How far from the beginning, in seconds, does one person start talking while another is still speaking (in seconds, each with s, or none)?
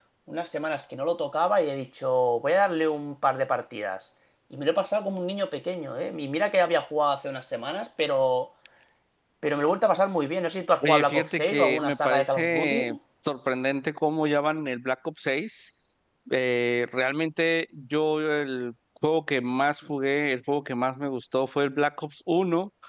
10.8 s